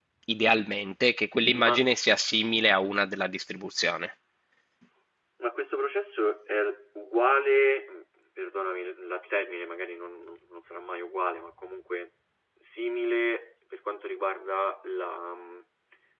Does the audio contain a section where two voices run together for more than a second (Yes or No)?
No